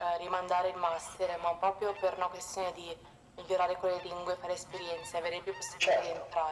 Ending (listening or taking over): taking over